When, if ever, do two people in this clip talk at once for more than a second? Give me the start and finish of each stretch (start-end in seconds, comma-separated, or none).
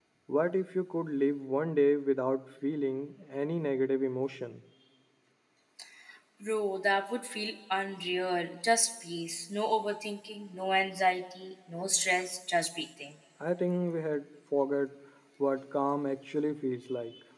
none